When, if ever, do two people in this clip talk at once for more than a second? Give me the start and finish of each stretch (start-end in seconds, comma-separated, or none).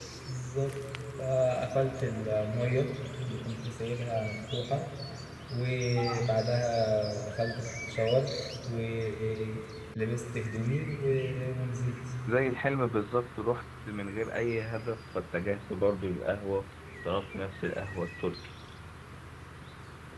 none